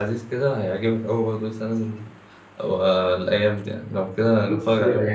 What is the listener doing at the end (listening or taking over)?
taking over